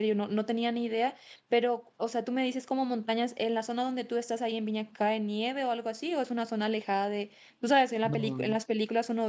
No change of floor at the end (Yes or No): Yes